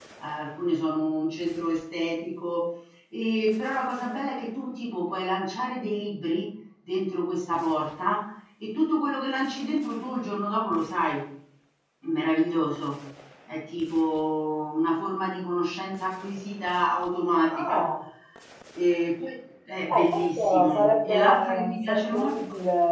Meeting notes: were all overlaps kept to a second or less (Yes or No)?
No